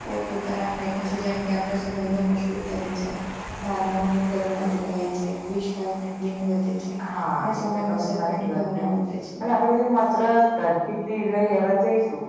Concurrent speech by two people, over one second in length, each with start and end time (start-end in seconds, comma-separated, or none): 7.4-8.9